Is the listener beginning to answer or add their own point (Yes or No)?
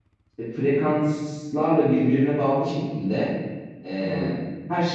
No